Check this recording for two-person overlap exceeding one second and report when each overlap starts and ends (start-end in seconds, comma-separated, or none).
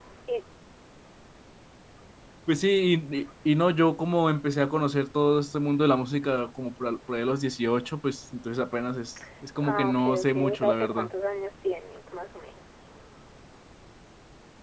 9.6-11.1